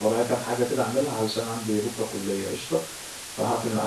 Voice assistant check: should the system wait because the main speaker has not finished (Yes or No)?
No